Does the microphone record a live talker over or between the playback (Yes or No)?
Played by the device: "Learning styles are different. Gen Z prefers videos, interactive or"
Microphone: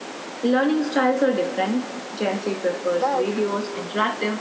Yes